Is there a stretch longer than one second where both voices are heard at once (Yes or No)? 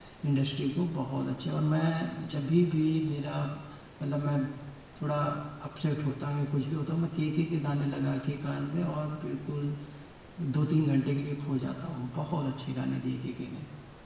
No